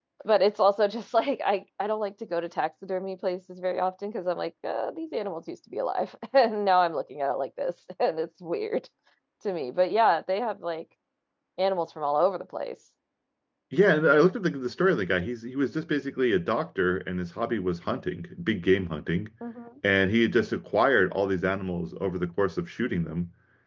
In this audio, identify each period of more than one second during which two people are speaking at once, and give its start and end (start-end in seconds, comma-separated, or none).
none